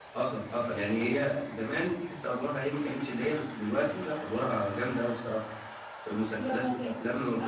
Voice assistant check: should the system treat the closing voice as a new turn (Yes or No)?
Yes